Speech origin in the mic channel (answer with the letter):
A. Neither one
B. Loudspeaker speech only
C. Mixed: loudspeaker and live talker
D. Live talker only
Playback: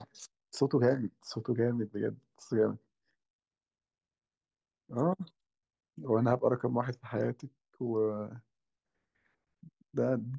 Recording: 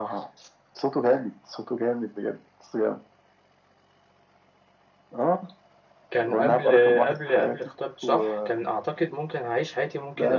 C